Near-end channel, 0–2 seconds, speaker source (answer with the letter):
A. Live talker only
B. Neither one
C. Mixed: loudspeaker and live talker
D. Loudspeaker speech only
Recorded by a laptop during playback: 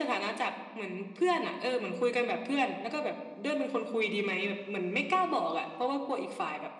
D